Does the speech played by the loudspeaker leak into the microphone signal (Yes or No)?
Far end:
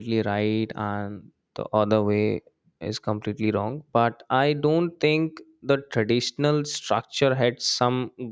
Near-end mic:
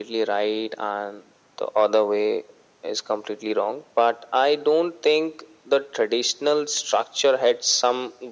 Yes